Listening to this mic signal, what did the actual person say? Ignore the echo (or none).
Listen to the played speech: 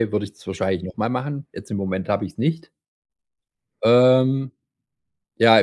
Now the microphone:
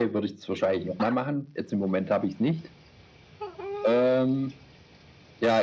none